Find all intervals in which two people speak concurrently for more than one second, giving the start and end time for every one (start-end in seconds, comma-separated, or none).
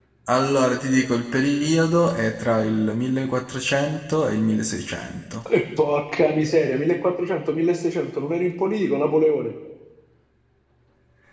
none